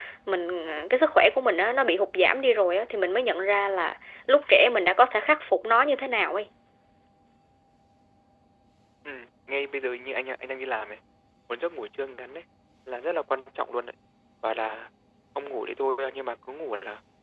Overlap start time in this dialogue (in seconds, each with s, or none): none